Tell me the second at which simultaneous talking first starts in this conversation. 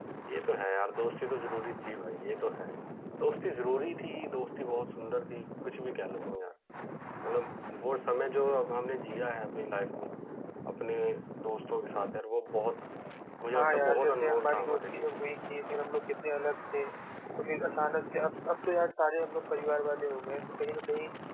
13.6 s

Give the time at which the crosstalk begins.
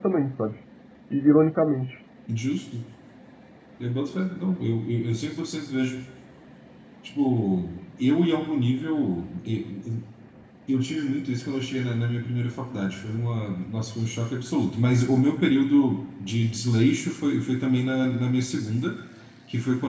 none

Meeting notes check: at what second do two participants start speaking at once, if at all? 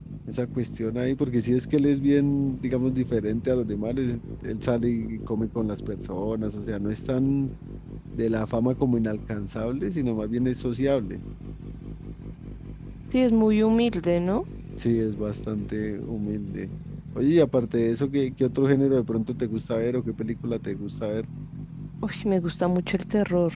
none

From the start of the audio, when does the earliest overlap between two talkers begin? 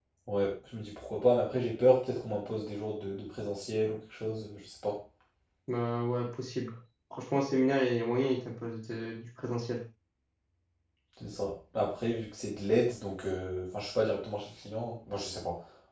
none

